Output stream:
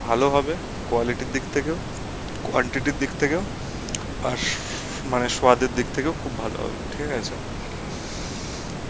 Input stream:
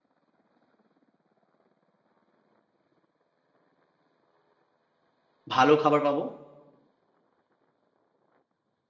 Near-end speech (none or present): present